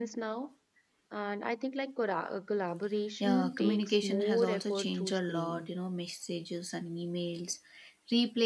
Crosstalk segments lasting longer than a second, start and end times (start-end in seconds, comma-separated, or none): 3.2-5.7